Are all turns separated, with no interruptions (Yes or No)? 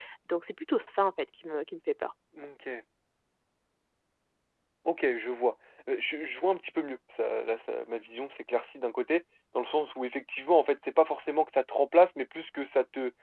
Yes